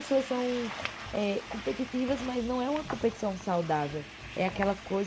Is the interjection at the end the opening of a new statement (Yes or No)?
No